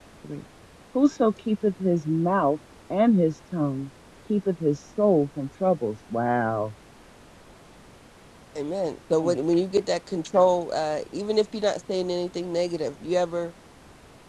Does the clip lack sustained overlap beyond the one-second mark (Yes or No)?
Yes